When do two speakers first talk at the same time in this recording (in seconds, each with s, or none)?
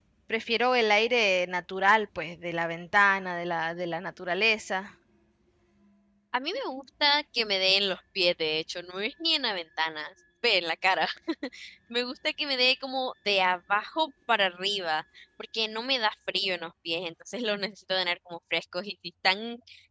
none